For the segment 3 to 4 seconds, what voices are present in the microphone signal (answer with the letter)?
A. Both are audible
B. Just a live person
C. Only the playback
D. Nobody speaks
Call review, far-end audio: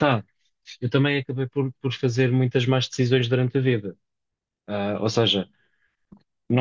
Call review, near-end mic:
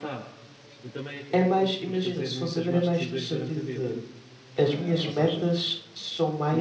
A